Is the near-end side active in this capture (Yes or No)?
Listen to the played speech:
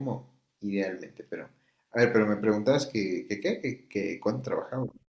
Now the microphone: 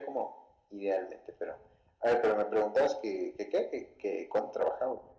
No